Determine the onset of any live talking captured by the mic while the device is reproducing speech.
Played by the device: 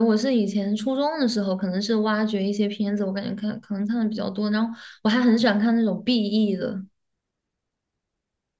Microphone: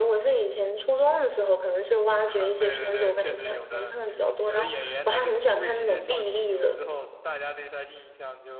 2 s

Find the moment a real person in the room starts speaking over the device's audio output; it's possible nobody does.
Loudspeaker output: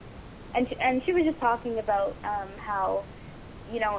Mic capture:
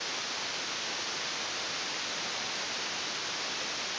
none

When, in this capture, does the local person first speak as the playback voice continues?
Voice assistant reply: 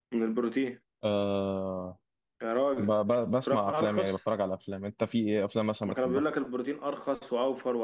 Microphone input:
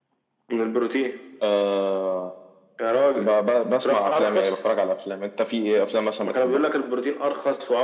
none

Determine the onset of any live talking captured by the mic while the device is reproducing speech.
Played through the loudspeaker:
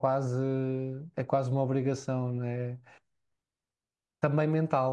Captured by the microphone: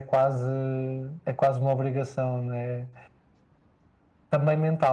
none

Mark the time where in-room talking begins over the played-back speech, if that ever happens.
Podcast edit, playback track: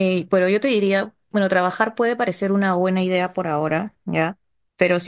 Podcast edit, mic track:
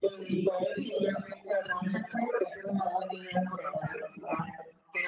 none

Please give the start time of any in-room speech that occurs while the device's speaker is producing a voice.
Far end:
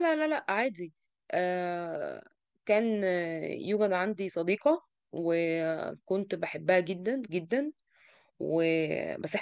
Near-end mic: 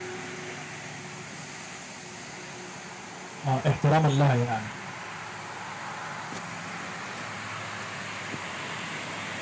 3 s

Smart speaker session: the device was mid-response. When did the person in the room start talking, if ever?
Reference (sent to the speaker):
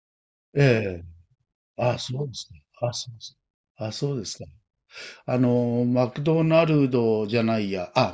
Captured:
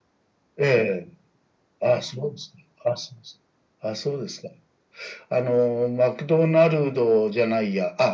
none

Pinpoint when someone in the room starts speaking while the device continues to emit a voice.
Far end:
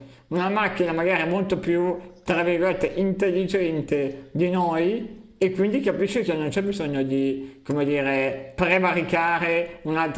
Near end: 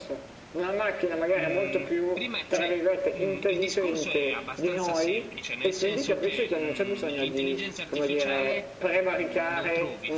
1 s

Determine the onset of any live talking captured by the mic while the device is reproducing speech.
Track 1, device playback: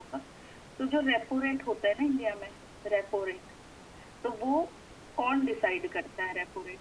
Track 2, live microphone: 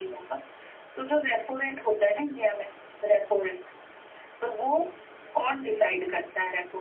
none

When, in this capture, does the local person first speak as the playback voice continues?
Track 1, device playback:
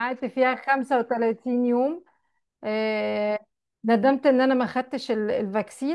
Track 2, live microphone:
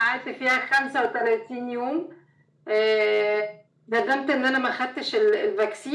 none

